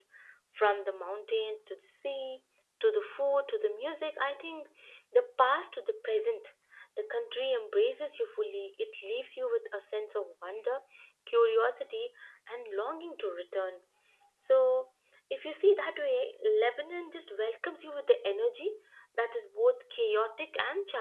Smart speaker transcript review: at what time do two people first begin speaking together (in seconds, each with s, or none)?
none